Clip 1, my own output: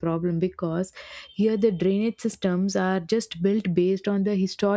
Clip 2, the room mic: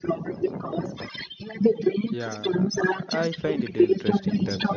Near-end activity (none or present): present